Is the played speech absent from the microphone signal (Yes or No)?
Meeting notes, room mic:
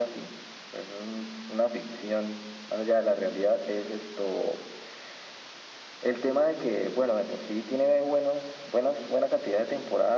No